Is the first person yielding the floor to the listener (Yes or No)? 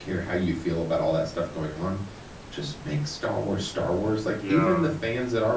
No